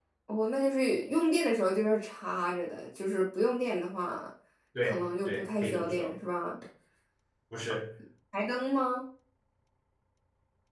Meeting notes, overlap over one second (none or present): present